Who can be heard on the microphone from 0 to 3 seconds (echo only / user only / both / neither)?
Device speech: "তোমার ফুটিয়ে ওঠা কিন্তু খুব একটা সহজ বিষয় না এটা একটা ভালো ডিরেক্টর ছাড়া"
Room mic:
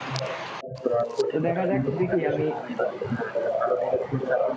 both